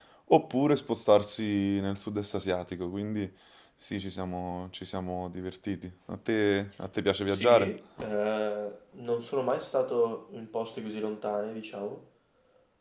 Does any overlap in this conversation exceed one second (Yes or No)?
No